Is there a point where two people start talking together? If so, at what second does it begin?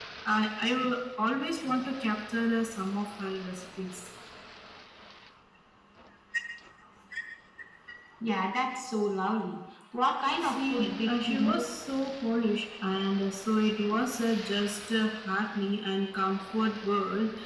10 s

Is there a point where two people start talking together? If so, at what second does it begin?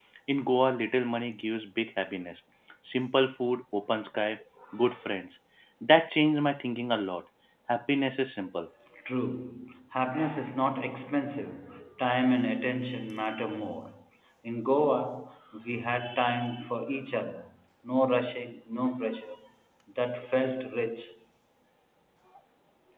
none

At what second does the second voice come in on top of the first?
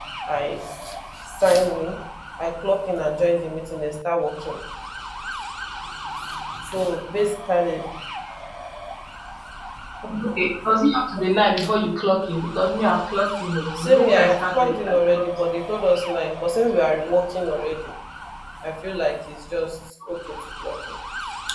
14 s

